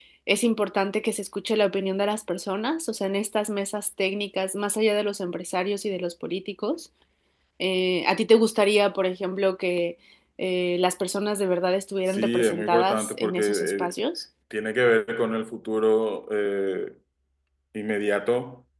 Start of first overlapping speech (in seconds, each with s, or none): 12.1 s